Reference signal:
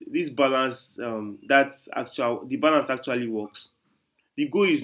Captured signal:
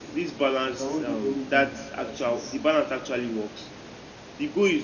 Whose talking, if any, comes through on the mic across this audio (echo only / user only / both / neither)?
both